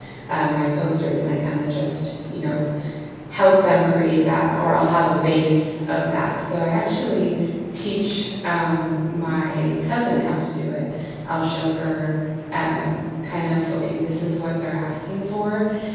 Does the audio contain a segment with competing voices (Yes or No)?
No